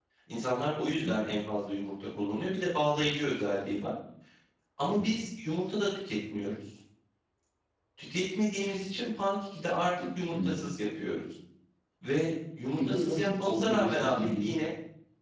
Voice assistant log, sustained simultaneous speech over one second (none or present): present